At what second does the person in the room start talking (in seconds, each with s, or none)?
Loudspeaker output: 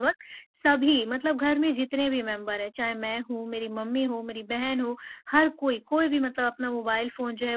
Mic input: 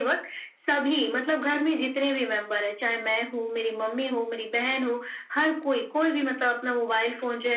none